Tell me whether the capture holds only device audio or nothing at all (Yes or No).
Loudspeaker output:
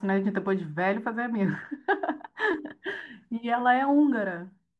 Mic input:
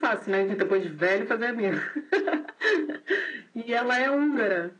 Yes